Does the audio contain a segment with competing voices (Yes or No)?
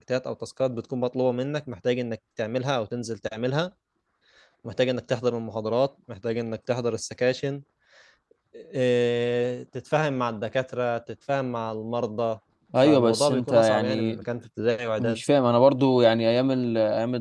Yes